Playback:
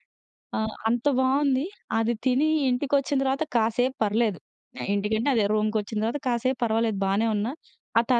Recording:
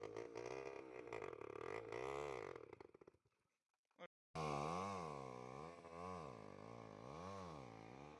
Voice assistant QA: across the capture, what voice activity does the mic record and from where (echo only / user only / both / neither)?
neither